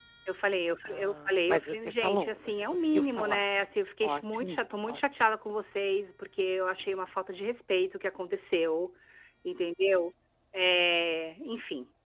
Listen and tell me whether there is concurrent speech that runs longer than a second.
Yes, from 0.8 s

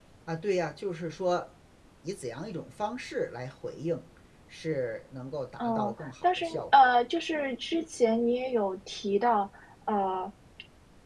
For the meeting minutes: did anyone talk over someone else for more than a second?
Yes, from 5.6 s

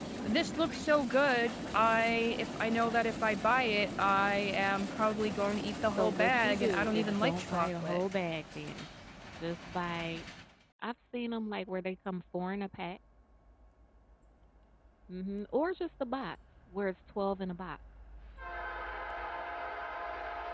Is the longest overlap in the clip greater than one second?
Yes, from 6.0 s

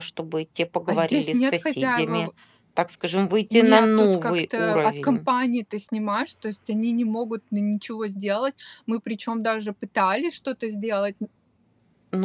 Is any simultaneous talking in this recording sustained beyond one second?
Yes, from 0.9 s

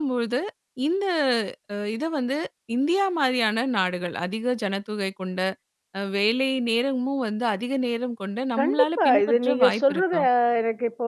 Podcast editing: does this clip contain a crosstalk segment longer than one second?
Yes, from 8.6 s

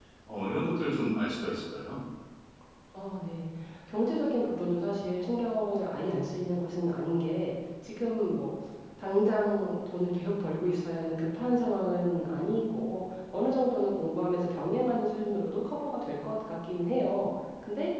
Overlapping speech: No

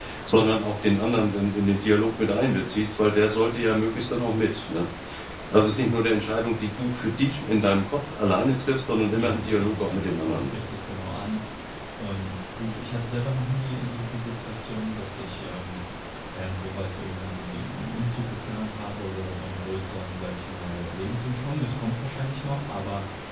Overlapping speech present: Yes, from 9.1 s

